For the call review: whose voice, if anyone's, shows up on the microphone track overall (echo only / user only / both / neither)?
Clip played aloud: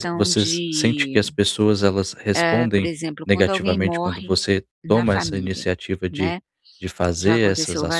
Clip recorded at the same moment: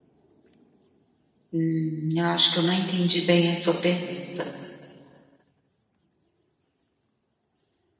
user only